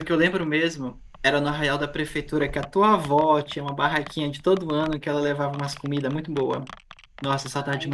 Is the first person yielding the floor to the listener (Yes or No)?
Yes